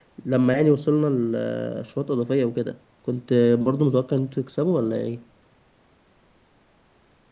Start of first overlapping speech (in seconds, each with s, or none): none